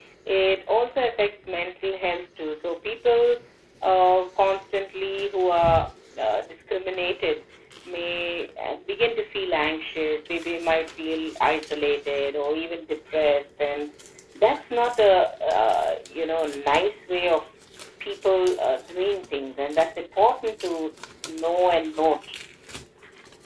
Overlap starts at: none

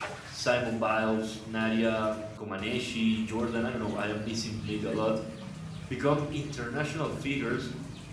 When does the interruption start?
none

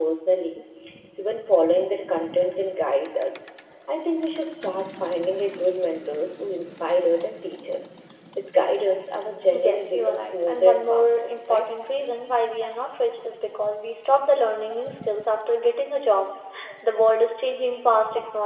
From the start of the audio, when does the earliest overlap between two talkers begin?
10 s

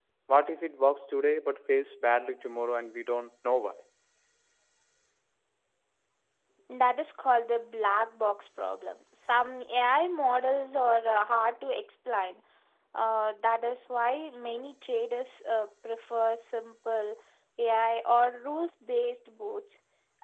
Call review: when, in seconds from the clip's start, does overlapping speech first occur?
none

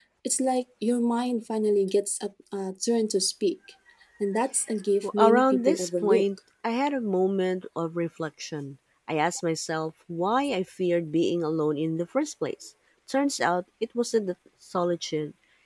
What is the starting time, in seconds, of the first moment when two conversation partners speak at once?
5 s

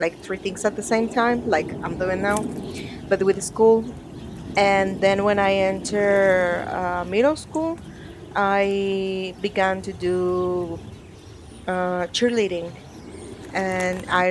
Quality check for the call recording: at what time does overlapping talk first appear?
none

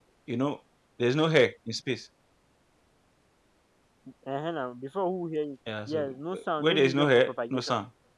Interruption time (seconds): 6 s

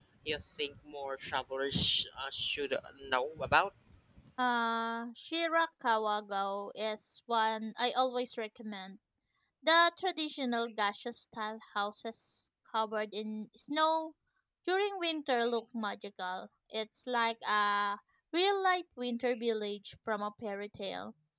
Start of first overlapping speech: none

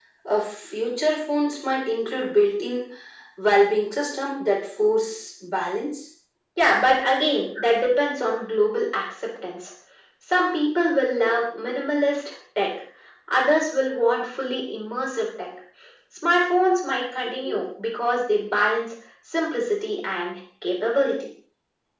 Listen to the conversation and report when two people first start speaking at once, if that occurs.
none

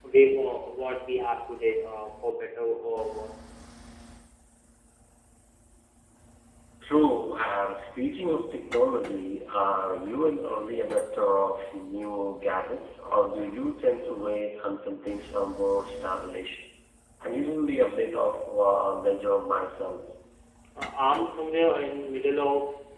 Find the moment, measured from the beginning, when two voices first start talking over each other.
none

